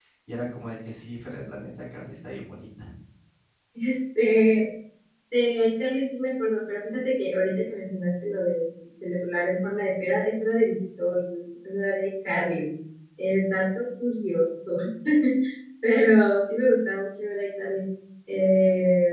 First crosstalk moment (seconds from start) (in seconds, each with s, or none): none